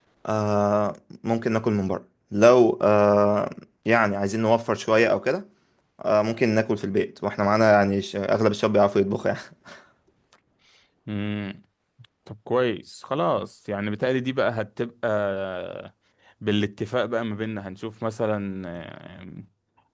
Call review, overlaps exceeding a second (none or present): none